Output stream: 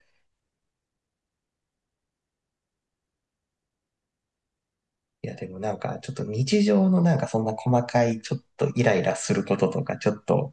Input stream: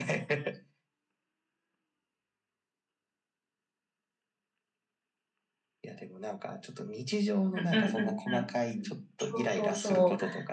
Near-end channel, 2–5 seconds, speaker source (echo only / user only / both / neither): neither